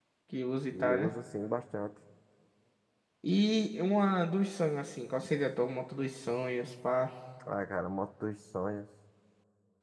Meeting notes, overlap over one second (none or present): none